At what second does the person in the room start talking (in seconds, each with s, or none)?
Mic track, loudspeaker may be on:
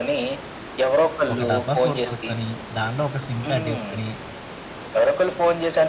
1.3 s